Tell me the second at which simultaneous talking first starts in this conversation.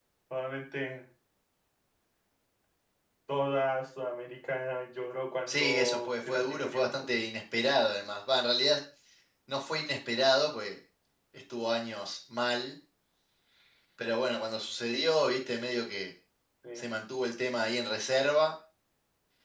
5.5 s

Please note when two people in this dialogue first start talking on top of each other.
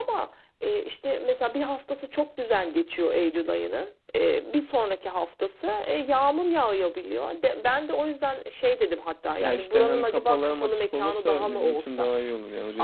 9.4 s

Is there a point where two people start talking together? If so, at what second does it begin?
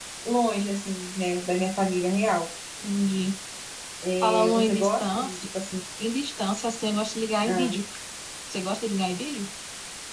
4.2 s

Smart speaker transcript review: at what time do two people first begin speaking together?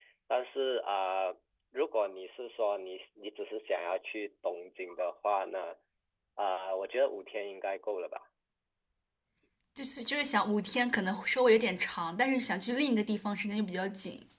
none

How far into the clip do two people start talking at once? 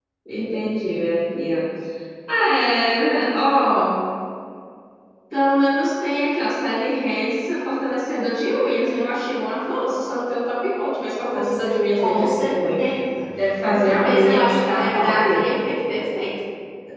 11.3 s

